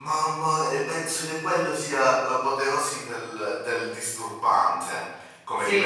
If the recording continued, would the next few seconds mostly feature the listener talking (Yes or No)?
Yes